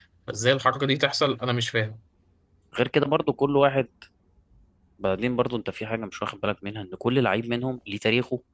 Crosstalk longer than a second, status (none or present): none